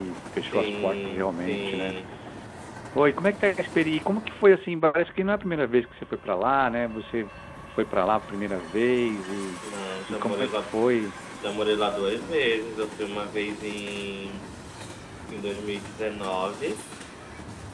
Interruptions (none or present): present